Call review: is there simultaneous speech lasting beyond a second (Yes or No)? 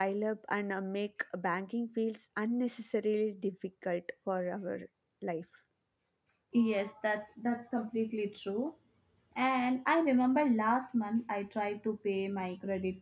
No